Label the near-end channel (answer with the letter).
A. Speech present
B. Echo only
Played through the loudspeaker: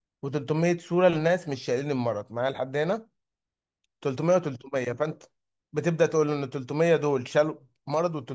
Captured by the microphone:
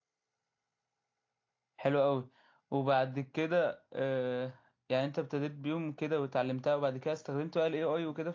A